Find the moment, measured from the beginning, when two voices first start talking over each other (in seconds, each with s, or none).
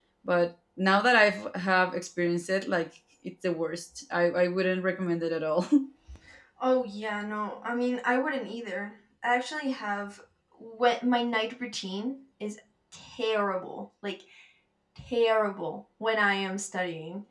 none